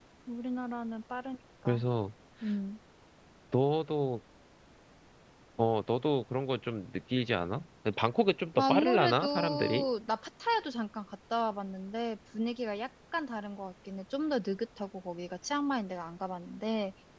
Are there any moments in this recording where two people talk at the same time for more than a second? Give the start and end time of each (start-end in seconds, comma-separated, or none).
8.6-9.8